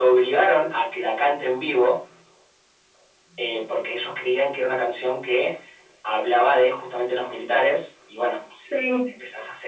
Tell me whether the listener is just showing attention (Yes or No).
Yes